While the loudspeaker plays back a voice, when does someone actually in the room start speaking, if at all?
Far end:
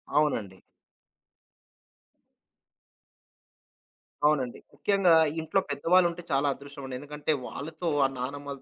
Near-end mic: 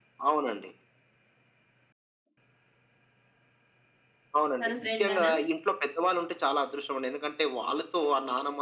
5 s

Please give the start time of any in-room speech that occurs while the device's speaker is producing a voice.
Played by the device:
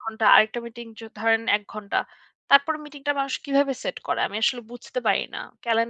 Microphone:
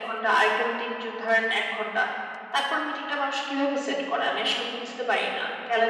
none

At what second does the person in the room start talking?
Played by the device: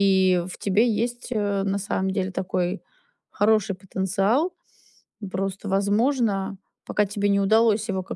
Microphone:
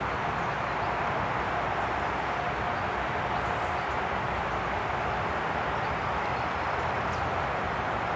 none

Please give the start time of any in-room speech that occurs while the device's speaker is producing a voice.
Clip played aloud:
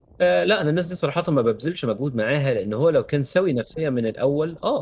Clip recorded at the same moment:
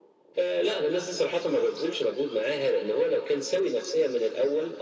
none

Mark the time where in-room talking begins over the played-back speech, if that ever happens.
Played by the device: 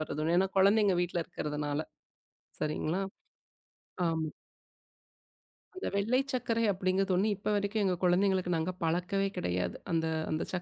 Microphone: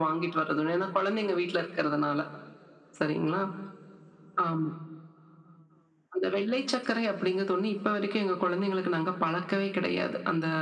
none

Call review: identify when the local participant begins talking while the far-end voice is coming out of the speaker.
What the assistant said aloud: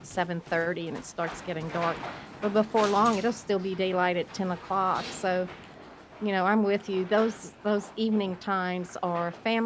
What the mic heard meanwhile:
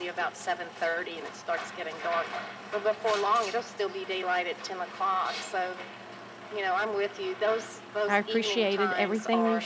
8 s

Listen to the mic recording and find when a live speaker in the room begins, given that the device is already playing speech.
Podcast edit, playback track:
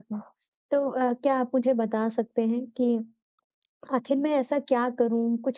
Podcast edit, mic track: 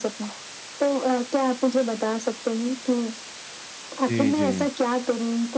4 s

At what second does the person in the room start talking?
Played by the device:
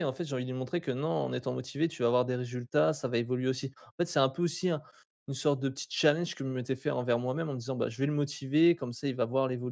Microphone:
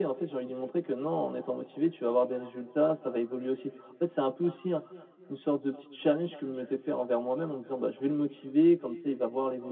none

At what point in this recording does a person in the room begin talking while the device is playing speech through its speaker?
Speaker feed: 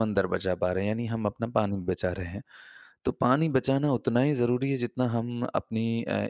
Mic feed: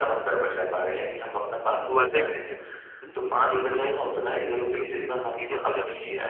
2 s

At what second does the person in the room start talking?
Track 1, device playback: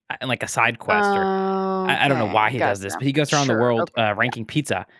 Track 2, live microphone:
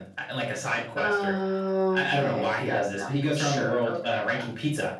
none

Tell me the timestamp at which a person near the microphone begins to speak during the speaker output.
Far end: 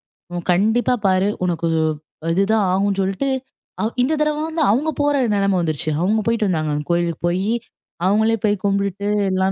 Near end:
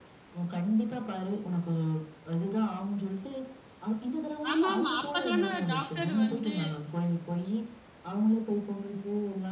5 s

